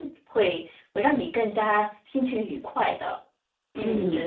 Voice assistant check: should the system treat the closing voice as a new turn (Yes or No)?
Yes